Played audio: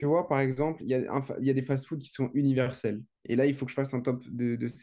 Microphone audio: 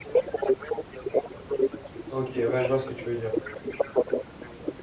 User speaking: Yes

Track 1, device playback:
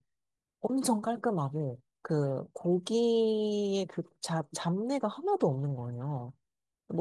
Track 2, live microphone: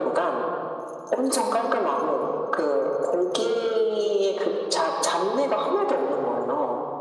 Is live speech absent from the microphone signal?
Yes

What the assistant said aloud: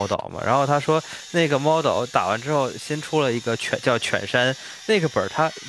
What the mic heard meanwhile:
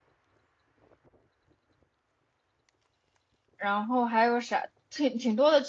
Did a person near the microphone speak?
Yes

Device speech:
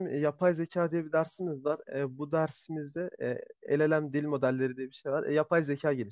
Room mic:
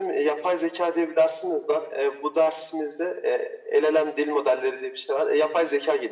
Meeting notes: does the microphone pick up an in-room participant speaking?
No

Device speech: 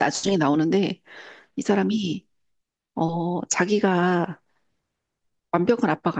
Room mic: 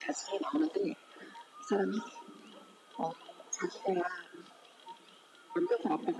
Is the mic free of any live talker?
Yes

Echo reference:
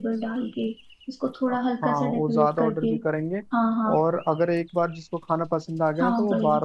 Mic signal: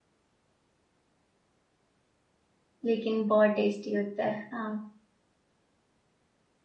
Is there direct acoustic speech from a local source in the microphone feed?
Yes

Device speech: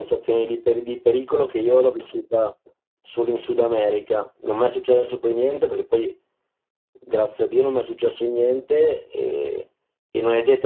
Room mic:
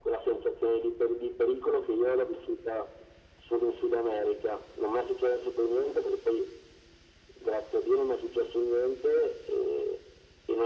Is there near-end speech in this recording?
No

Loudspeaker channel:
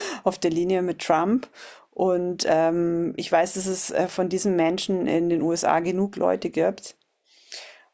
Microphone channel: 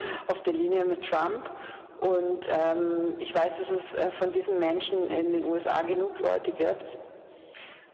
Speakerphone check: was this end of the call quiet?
Yes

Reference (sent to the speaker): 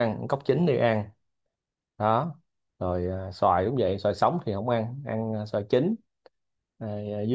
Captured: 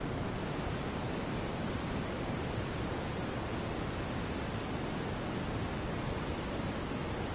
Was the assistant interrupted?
No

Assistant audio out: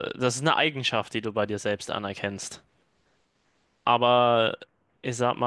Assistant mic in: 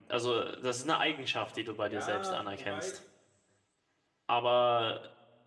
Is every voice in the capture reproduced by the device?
No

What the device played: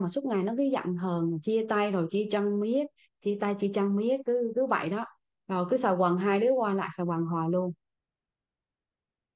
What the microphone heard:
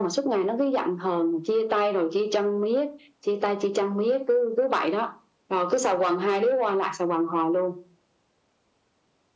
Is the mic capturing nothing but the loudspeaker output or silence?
Yes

